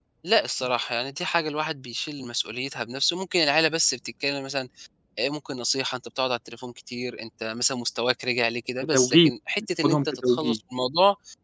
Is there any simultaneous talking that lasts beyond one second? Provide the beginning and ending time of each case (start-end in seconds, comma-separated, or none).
8.9-10.6